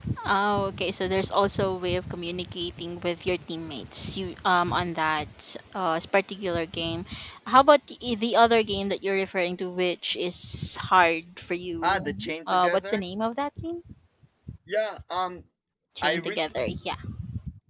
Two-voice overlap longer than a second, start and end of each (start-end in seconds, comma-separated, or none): 11.8-13.0